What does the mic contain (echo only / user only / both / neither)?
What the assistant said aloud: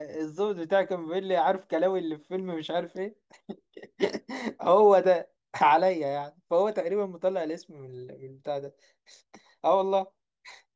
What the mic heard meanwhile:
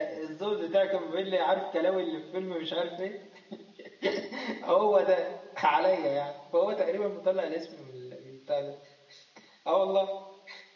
echo only